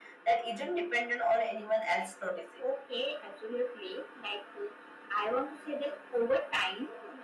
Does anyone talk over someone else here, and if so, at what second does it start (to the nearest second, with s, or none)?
none